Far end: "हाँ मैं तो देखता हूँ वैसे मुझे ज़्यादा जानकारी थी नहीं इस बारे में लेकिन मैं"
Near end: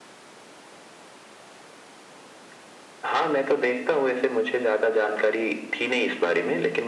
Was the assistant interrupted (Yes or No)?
No